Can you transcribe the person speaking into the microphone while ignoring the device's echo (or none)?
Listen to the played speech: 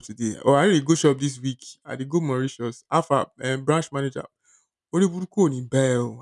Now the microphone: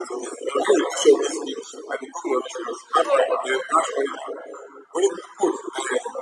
So wait, a minute.